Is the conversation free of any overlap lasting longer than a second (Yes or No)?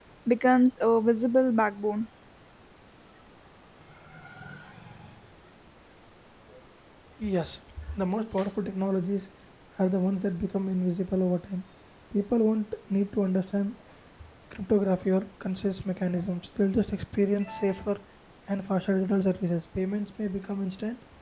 Yes